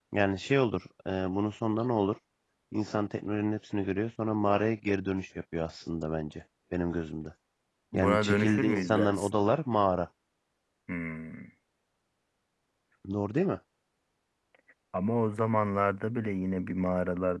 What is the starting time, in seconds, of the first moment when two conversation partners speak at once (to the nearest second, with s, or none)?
8 s